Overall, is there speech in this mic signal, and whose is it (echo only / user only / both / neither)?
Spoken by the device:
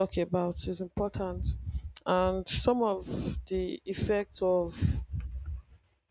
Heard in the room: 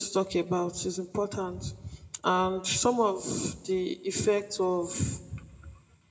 echo only